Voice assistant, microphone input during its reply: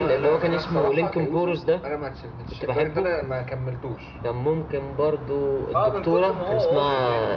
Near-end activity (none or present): present